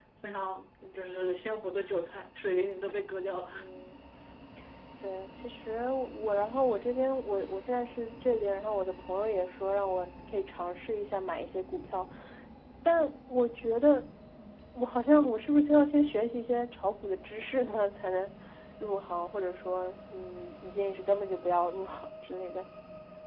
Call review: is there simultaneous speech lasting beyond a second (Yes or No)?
No